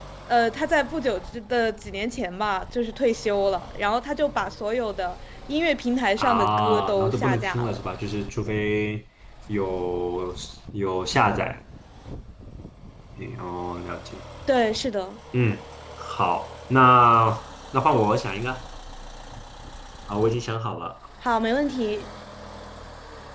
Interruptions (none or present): present